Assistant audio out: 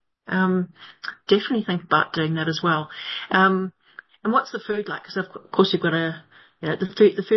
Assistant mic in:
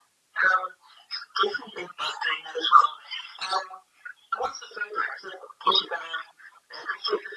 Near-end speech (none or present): none